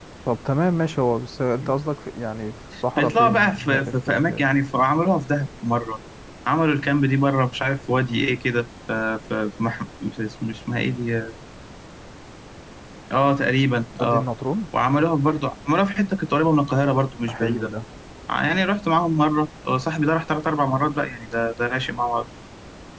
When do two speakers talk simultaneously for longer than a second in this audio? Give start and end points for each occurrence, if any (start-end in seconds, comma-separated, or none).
3.0-4.5